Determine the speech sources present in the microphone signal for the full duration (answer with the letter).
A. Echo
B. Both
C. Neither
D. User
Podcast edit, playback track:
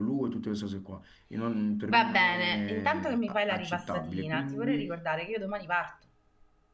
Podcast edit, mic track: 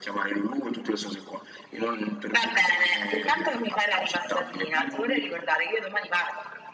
A